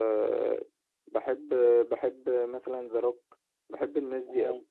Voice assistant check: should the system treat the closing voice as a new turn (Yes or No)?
Yes